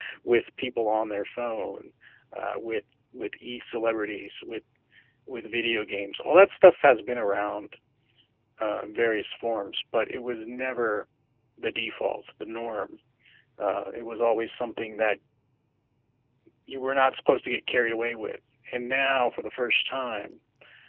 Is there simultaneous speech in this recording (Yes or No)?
No